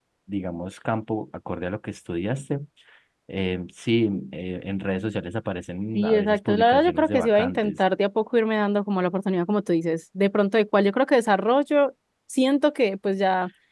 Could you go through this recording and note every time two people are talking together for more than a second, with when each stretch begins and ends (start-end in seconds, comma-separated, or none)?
5.9-7.7